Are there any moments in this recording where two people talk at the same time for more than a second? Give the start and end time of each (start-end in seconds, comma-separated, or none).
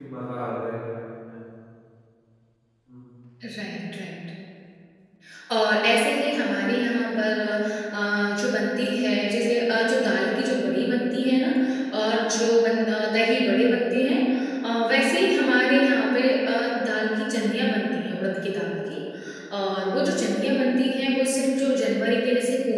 none